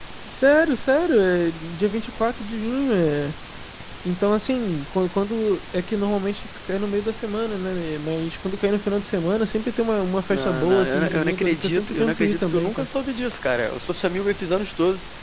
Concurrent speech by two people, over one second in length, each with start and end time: 10.3-12.9

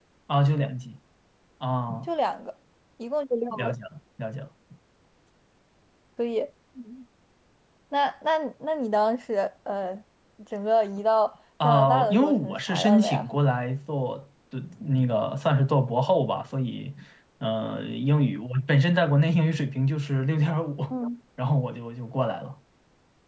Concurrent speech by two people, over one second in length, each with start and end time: 11.6-13.2

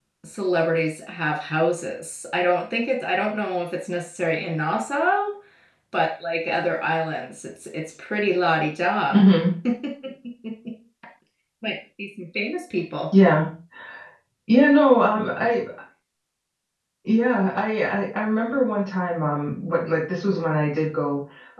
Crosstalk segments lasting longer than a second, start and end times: none

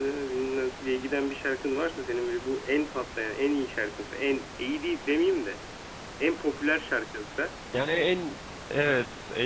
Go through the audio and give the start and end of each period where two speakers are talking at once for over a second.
none

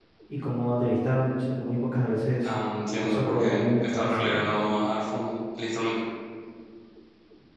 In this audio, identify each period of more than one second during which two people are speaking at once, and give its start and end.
3.0-4.5

